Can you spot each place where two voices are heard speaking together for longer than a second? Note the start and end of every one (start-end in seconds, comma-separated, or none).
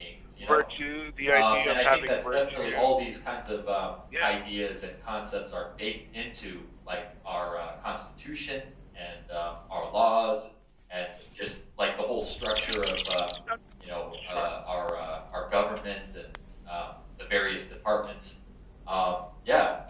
1.3-2.9